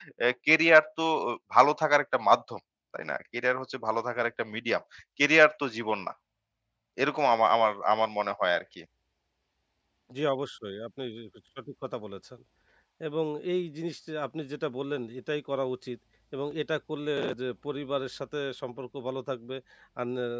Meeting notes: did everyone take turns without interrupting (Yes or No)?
Yes